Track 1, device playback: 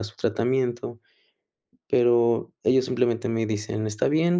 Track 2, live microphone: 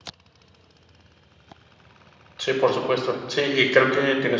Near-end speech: present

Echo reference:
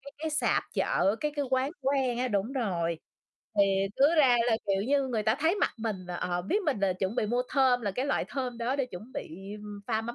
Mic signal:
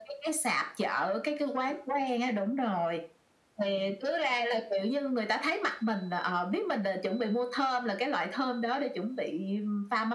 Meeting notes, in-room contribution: none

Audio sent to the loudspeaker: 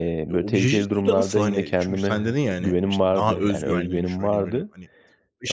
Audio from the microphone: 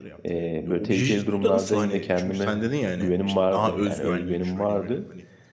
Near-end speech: none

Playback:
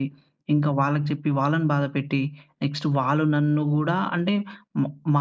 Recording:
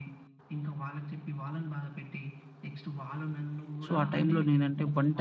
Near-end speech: present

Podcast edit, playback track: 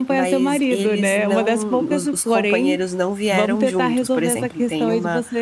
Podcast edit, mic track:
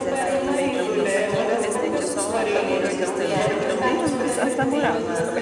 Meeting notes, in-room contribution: present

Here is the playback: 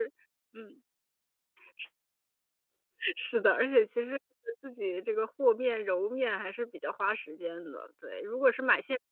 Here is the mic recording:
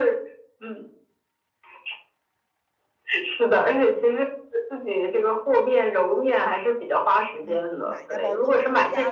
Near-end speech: present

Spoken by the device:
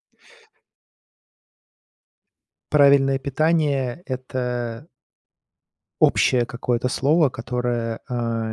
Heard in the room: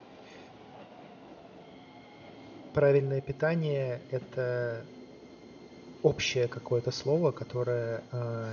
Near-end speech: none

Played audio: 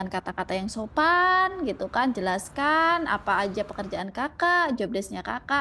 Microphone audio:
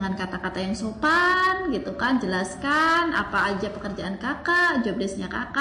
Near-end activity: none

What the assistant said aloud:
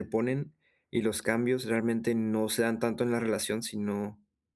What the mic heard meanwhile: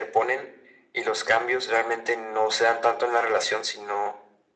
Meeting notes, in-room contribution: none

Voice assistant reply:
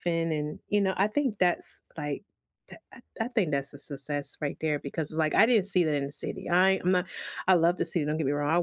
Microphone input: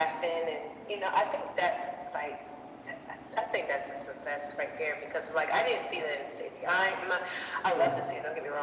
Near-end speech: present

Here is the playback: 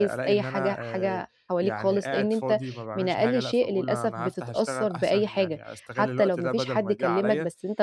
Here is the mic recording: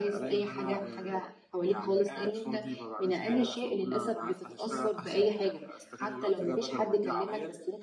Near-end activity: none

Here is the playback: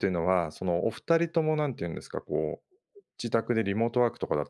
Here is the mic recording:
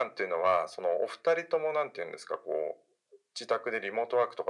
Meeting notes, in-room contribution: none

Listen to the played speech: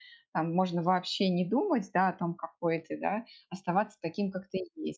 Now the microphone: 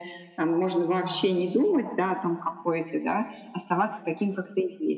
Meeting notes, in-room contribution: present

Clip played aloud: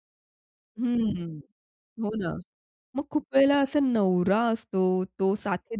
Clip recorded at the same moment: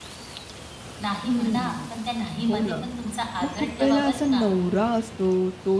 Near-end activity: present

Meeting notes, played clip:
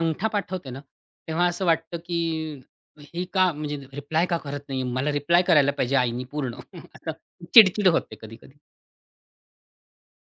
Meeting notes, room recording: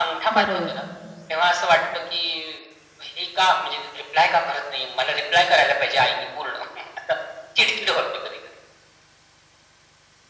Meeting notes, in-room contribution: present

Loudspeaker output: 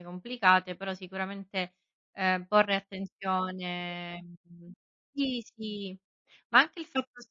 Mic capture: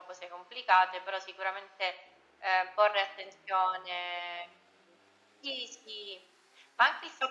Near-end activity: none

